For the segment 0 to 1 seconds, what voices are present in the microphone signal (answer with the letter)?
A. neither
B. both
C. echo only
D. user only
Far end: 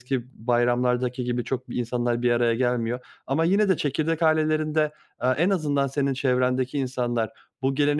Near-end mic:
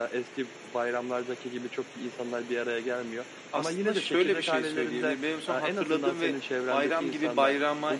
C